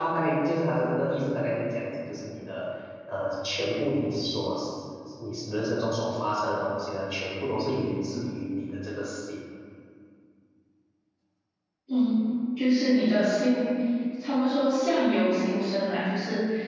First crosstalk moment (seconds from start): none

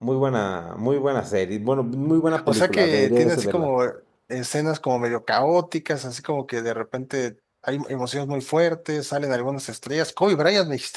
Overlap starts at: 2 s

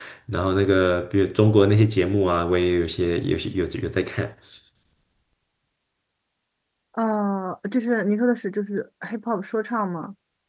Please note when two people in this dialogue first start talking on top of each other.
none

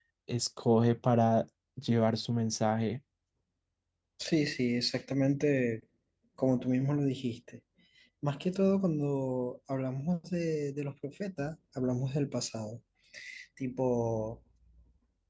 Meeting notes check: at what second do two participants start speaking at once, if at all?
none

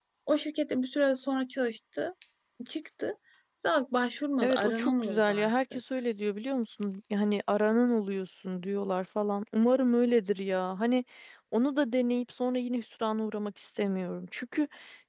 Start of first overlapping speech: 4 s

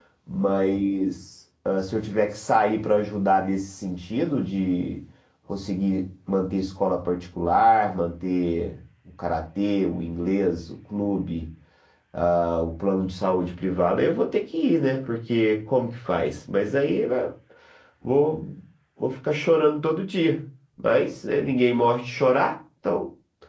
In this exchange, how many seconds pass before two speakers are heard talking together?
none

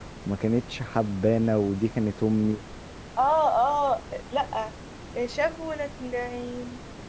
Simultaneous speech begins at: none

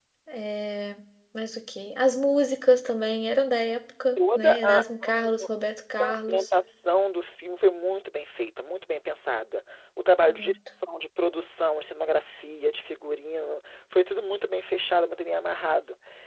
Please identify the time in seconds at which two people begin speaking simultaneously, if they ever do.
4 s

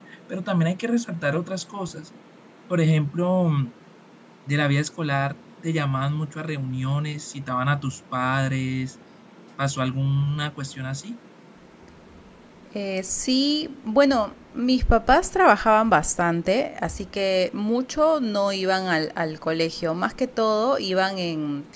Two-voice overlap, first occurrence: none

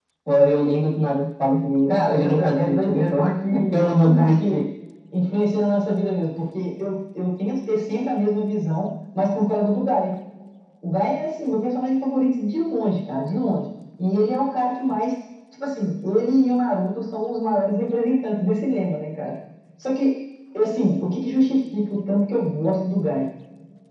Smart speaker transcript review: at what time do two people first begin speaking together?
2 s

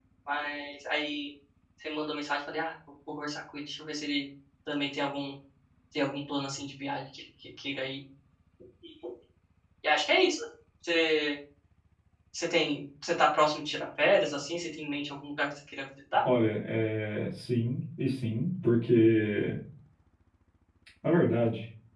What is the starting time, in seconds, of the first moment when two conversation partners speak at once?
none

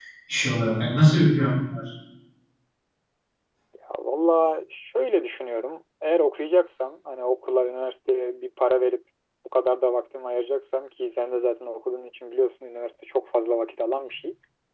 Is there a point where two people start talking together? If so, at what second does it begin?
none

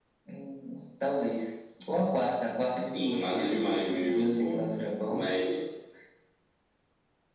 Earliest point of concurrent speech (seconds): 3 s

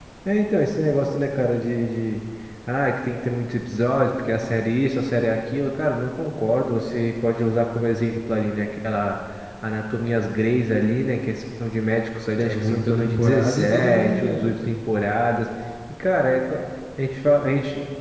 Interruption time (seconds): 12 s

